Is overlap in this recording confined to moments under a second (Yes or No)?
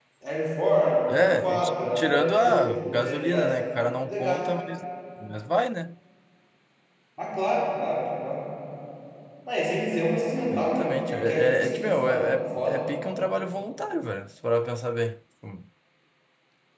No